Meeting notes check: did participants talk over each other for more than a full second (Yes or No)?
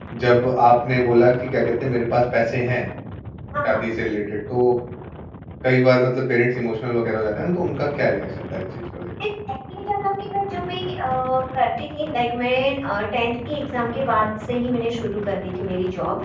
No